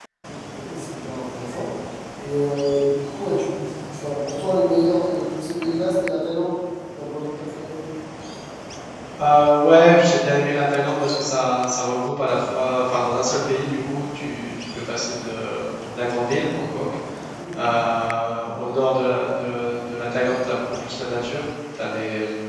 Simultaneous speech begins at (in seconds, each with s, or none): none